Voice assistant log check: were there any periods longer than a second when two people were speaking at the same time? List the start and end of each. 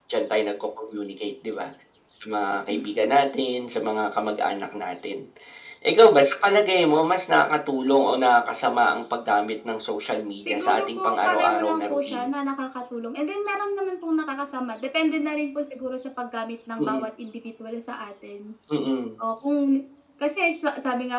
10.4-12.3

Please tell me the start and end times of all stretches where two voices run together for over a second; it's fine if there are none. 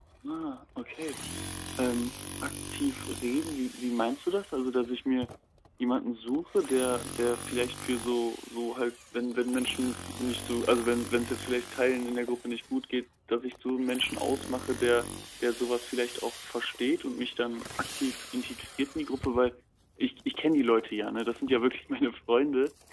none

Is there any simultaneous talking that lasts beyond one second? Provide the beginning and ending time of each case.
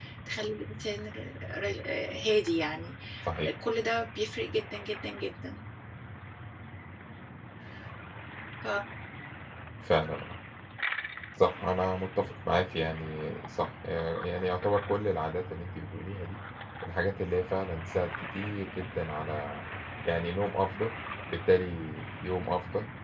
none

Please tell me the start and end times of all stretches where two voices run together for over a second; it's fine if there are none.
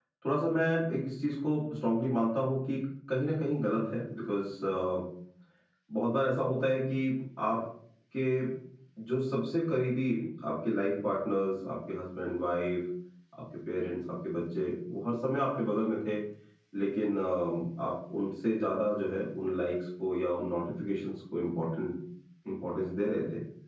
none

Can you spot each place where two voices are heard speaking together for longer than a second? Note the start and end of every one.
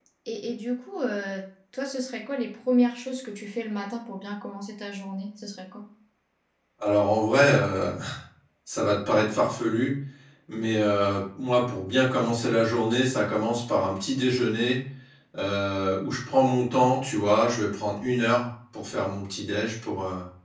none

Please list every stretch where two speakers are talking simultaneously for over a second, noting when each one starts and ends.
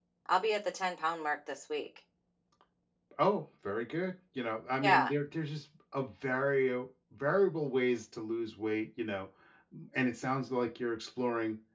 none

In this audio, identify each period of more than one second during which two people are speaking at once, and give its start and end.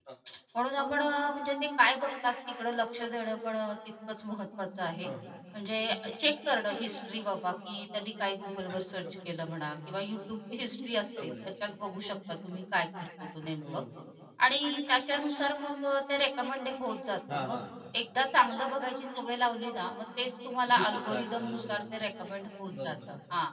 20.7-22.1

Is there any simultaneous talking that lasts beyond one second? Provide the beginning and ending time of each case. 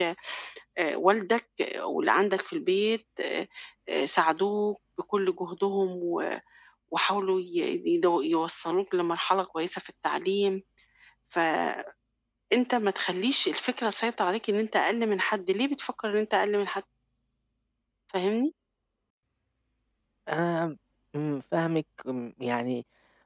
none

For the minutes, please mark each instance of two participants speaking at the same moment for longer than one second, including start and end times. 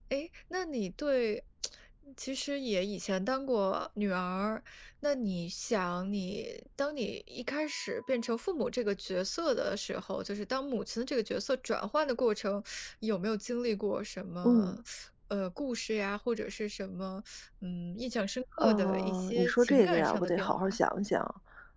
18.6-20.8

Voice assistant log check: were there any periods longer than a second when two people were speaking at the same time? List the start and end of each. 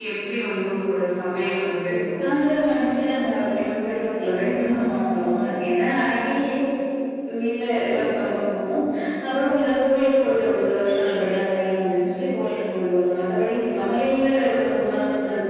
none

